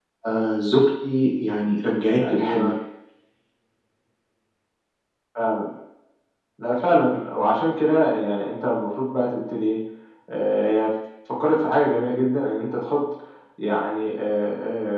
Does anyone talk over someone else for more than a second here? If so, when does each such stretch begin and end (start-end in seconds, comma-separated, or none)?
none